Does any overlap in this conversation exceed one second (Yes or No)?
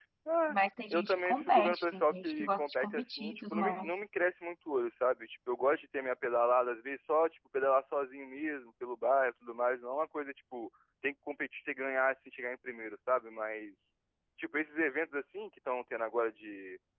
Yes